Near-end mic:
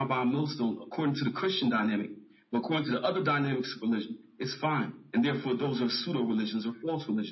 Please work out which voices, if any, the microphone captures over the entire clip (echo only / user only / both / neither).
echo only